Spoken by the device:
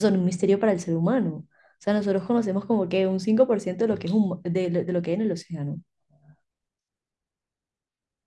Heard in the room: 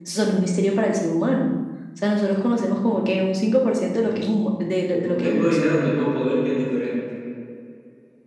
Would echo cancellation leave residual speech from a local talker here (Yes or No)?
Yes